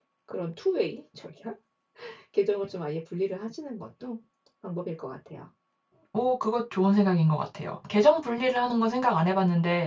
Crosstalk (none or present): none